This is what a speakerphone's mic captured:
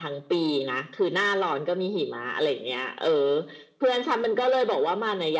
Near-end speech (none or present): none